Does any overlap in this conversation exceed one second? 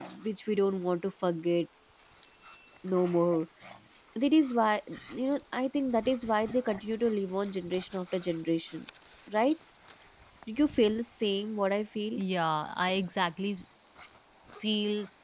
No

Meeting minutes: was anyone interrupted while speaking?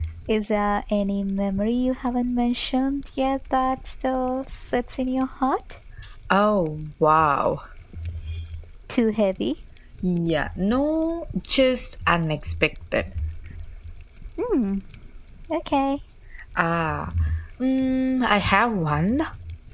No

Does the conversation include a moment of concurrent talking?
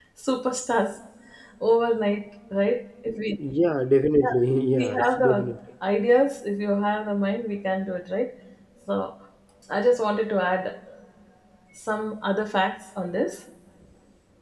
Yes, from 4.2 s

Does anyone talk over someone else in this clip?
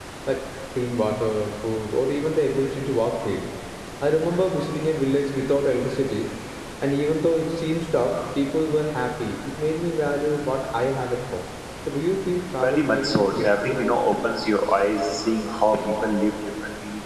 Yes, from 12.6 s

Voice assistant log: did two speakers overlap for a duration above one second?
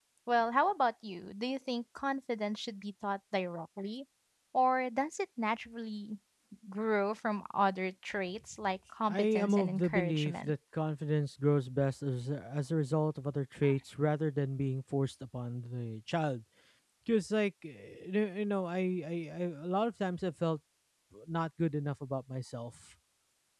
Yes, from 9.1 s

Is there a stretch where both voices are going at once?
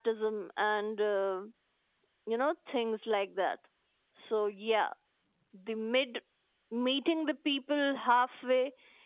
No

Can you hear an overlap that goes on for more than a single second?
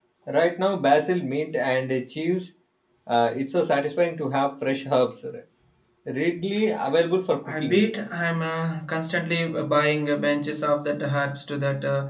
No

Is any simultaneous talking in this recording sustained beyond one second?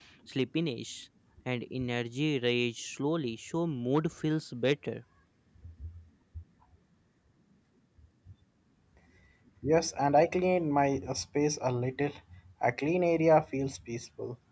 No

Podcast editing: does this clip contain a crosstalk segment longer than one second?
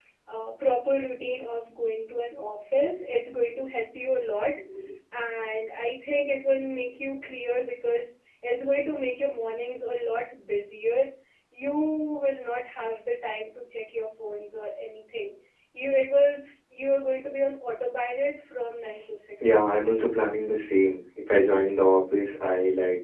No

